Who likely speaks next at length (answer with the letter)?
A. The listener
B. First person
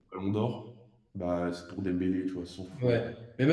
A